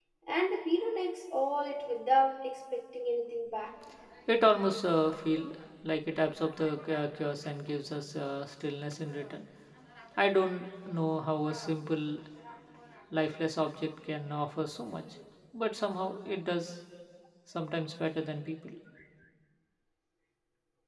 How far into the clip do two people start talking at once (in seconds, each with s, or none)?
none